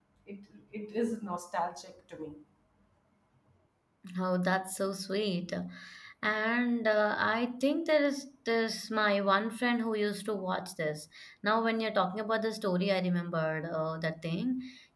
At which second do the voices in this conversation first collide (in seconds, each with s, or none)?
none